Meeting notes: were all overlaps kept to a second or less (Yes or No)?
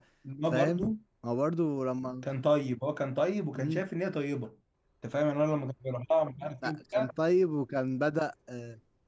Yes